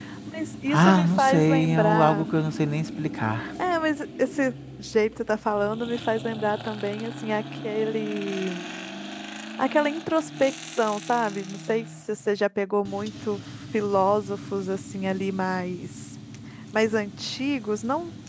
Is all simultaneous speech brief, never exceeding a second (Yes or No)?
No